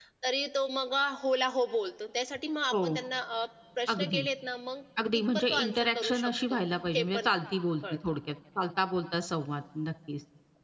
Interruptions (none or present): present